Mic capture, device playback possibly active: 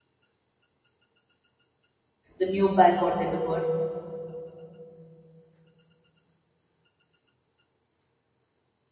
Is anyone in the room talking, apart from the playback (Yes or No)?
Yes